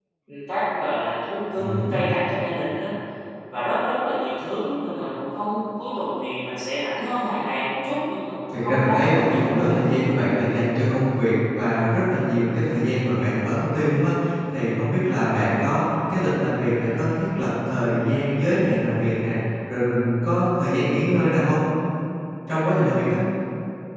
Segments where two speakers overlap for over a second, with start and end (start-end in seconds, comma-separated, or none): 8.5-9.8